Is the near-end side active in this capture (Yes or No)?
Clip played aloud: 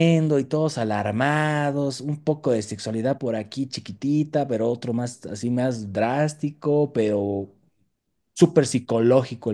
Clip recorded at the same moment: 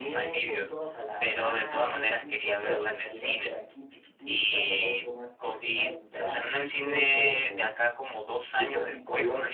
Yes